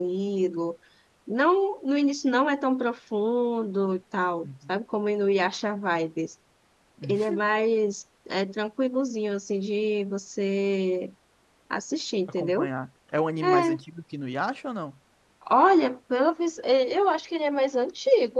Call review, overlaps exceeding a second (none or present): none